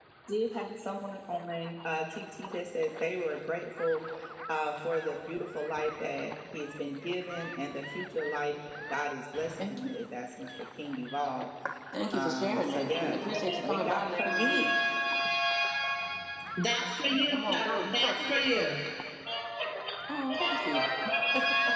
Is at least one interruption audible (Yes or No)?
Yes